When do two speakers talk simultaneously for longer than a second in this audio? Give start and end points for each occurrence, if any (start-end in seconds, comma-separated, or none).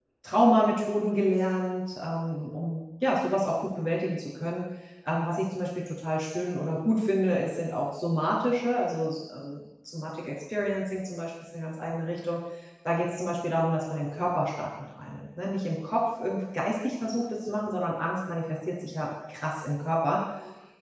none